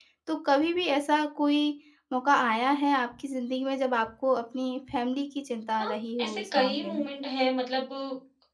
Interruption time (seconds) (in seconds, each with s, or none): 5.8 s